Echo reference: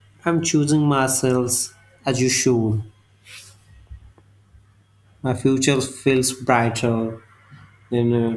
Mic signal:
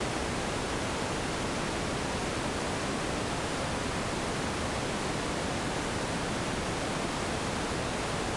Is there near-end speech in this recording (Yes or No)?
No